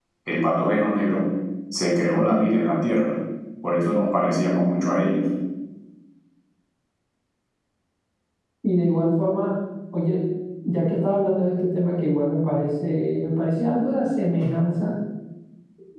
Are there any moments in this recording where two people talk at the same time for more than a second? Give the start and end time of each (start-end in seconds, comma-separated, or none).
none